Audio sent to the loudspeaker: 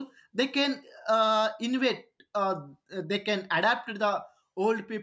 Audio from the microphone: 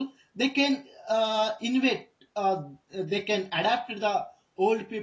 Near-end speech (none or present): none